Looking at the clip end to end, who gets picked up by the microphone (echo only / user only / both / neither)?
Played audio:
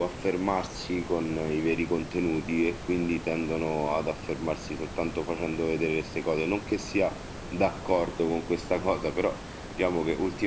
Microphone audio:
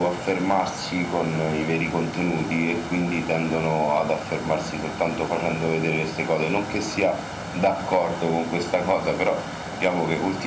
echo only